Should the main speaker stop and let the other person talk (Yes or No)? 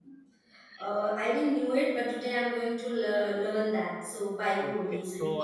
Yes